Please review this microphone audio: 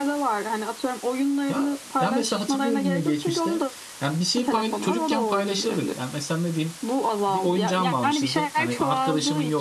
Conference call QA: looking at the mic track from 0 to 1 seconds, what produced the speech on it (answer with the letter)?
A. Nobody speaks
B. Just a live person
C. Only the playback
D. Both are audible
C